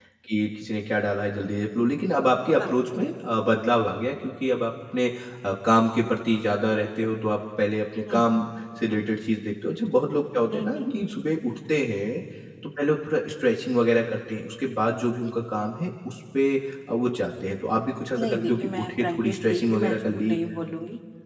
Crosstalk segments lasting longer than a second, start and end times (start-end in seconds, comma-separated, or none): 18.2-20.4